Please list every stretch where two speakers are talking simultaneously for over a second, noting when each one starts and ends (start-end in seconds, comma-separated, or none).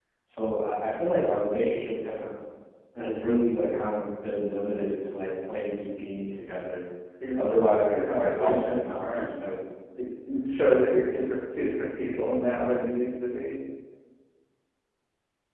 7.9-9.3